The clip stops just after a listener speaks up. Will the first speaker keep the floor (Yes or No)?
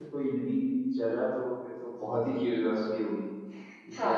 No